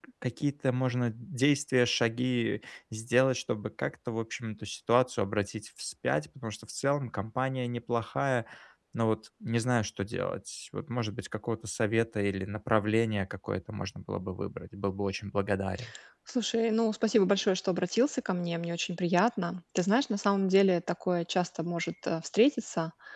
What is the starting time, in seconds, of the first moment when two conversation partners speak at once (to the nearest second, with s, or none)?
none